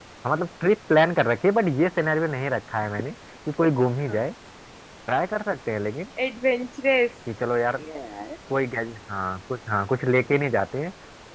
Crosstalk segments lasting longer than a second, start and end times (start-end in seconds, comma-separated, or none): none